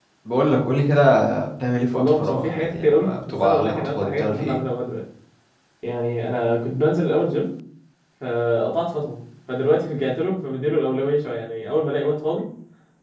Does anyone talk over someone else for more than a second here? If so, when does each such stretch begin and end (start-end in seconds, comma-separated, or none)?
1.9-4.6